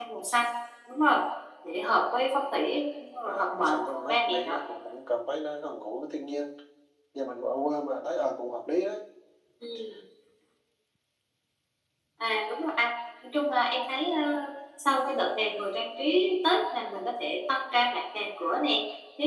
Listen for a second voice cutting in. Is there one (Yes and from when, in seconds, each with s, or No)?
Yes, from 3.2 s